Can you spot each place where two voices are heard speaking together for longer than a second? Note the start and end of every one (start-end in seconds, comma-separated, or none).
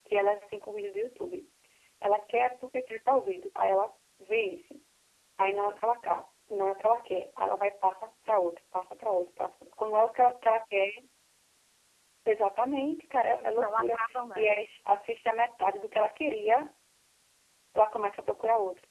none